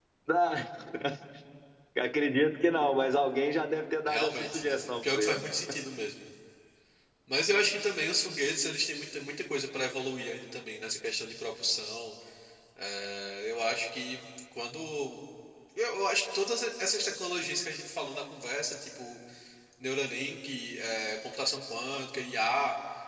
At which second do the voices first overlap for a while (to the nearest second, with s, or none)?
4 s